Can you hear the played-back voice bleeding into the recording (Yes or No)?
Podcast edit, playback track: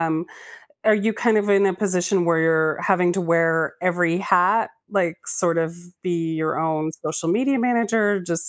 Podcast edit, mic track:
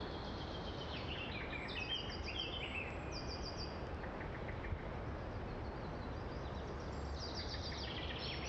No